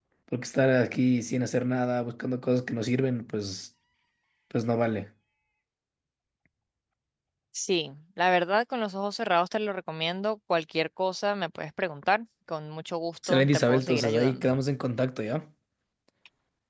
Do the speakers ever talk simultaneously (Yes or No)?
Yes